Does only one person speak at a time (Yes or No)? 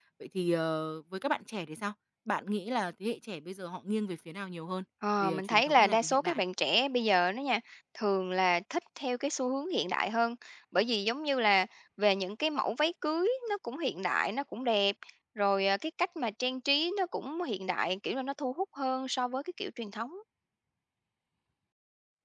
No